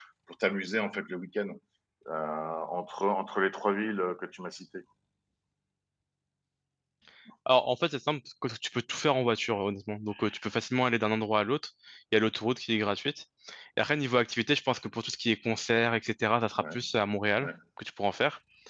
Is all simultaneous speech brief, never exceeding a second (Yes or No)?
Yes